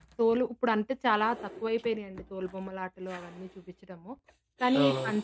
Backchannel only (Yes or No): Yes